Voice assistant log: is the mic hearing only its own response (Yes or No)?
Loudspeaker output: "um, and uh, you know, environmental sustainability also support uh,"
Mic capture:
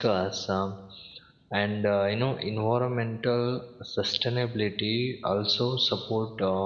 Yes